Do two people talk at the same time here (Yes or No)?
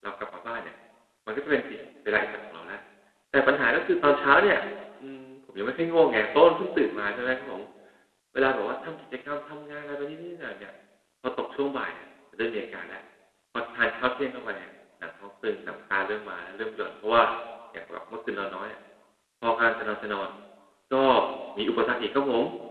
No